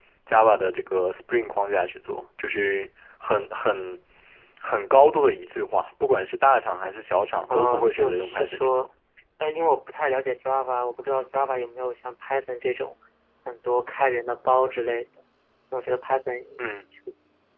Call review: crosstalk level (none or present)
present